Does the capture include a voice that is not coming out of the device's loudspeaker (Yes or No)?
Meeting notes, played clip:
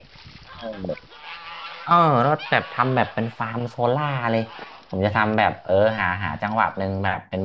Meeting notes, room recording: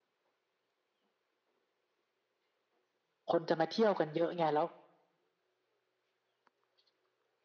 Yes